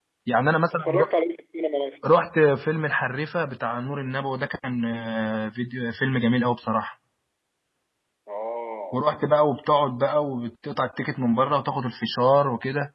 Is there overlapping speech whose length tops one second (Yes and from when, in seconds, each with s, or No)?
No